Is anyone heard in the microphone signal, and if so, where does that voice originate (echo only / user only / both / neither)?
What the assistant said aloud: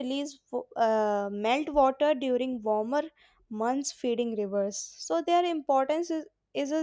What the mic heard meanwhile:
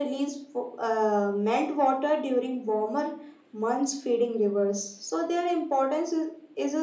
echo only